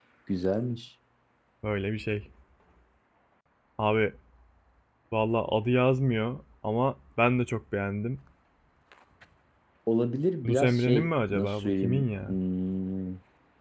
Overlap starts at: 10.4 s

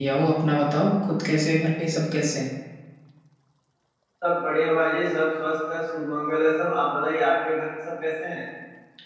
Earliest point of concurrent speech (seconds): none

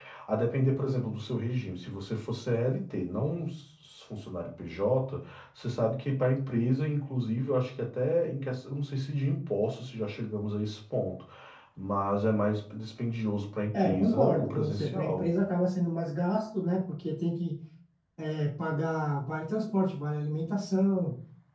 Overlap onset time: 13.7 s

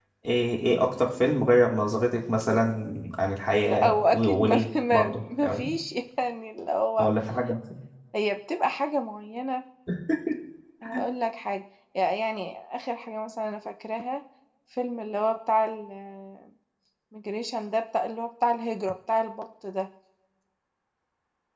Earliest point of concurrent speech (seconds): 3.6 s

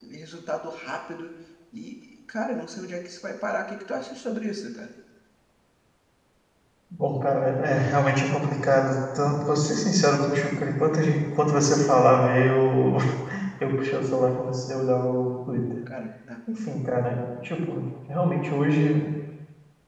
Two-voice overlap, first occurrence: none

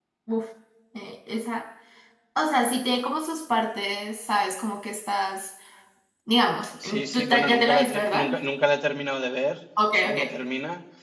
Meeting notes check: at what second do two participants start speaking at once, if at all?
6.8 s

